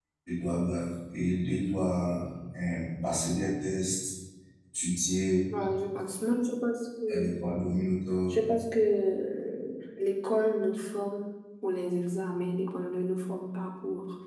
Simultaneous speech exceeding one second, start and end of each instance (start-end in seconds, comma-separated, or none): none